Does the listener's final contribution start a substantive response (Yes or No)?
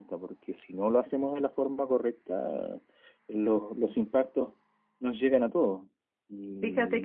Yes